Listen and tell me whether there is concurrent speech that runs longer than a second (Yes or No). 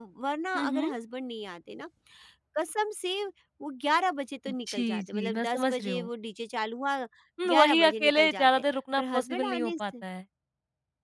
Yes